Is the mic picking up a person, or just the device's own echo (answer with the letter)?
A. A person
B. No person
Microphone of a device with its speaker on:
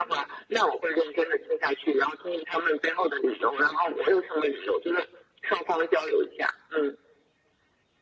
B